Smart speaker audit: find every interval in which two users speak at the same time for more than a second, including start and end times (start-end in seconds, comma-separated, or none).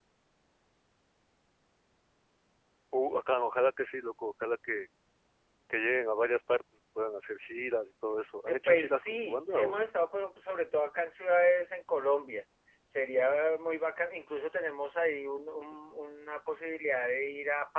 8.5-9.8